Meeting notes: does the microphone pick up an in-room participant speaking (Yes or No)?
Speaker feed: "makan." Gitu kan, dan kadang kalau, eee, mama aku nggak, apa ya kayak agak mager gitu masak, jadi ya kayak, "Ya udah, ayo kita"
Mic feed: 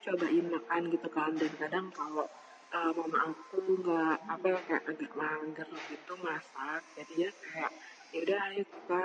Yes